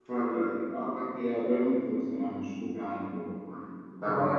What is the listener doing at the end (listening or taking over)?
taking over